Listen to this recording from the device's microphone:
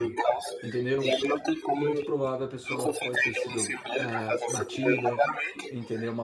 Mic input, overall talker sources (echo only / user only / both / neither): both